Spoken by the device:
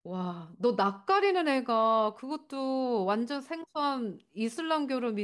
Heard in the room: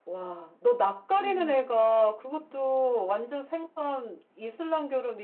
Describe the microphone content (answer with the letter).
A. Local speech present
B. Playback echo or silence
A